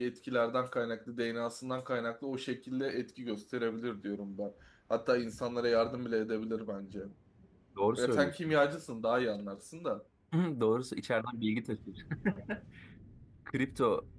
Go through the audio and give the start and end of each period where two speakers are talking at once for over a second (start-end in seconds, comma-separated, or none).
none